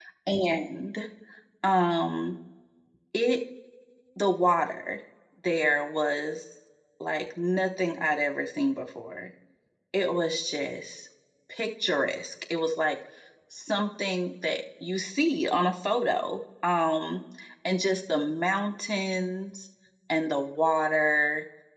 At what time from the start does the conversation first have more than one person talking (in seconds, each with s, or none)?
none